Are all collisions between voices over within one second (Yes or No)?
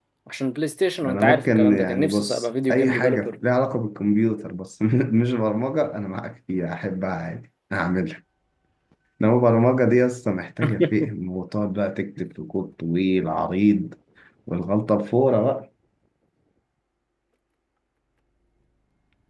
No